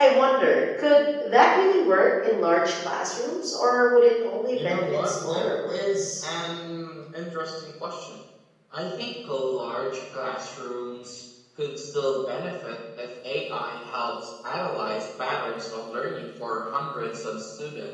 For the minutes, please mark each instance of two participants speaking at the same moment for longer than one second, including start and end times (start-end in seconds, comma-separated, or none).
4.5-6.2